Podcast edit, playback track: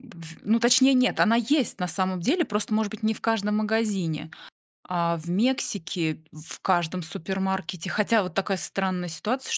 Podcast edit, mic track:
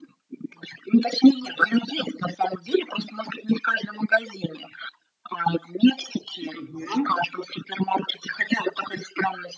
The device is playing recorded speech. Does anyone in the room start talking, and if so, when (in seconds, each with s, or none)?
6.5 s